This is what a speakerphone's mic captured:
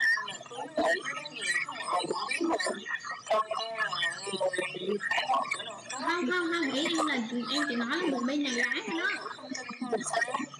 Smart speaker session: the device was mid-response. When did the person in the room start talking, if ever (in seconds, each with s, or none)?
5.9 s